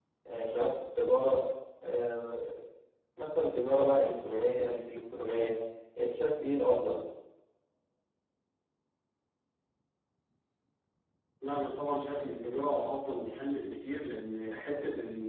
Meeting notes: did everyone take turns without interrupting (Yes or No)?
Yes